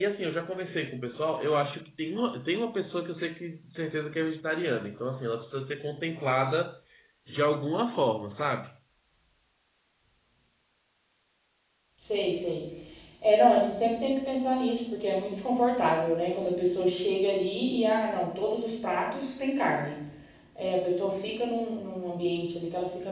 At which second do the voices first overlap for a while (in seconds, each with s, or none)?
none